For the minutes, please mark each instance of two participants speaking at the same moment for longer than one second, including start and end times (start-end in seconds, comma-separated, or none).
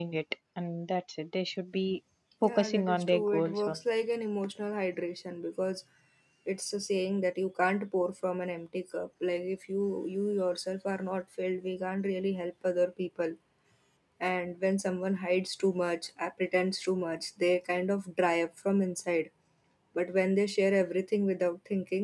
2.4-3.8